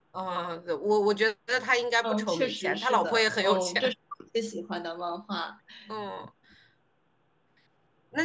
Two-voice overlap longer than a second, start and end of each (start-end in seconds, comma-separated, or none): 2.0-3.9